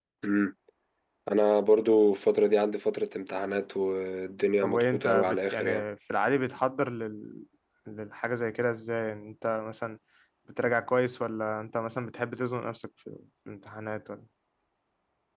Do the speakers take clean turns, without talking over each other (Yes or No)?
No